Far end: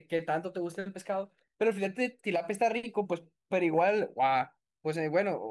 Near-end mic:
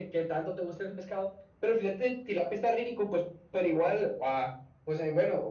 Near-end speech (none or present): none